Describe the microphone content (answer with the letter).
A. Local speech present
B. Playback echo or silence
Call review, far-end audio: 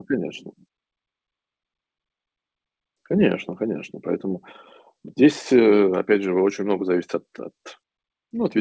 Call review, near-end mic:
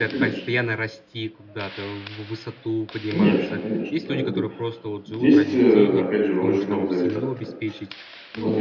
A